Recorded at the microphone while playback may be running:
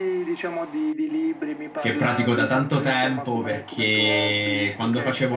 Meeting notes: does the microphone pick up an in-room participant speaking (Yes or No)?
Yes